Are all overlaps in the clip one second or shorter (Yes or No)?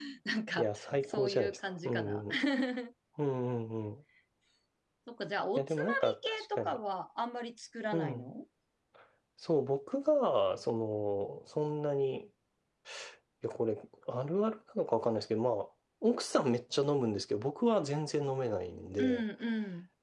No